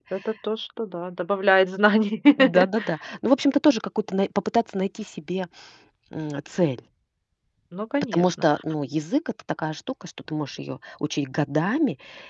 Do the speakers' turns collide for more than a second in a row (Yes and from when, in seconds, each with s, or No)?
No